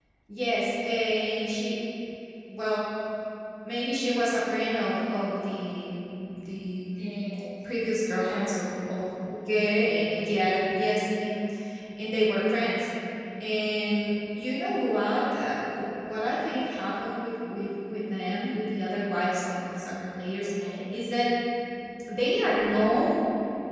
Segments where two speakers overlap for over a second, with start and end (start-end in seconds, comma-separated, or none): none